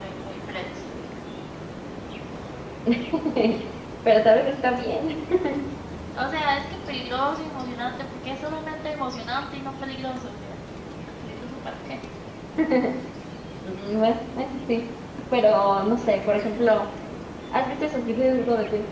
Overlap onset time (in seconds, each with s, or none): none